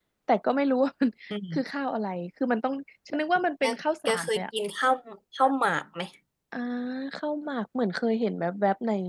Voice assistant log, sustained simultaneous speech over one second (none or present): none